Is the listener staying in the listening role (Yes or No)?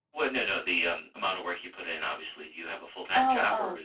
No